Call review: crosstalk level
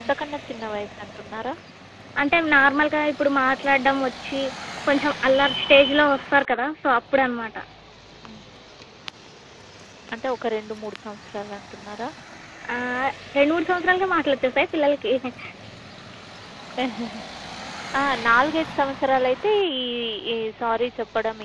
none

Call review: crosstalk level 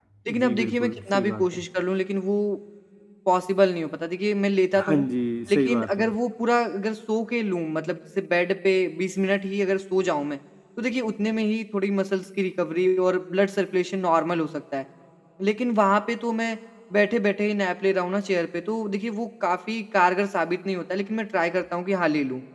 present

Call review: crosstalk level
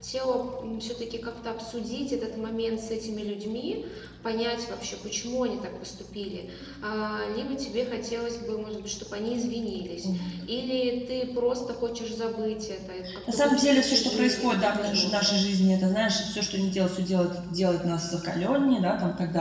present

